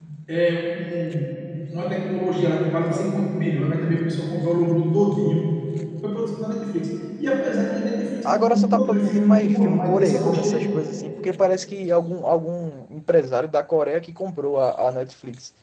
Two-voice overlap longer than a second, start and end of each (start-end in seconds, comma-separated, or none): 8.2-10.7